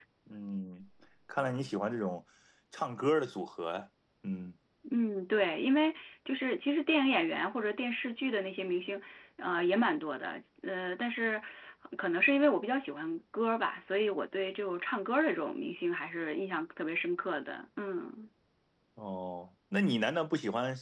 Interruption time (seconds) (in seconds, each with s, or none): none